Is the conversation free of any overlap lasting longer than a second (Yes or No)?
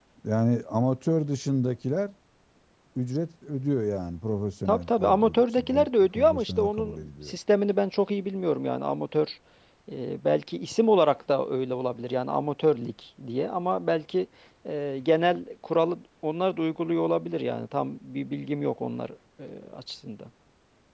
No